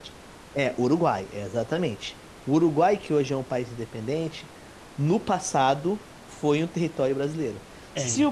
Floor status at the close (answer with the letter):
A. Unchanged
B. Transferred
A